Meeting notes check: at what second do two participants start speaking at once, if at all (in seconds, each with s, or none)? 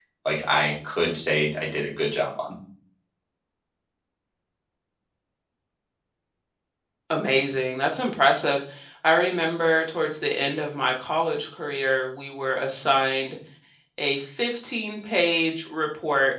none